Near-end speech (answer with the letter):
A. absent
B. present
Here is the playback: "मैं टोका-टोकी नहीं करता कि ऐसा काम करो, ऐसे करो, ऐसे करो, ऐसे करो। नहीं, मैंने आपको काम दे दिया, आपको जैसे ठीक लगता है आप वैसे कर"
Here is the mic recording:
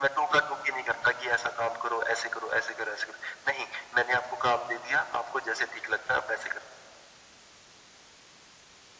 A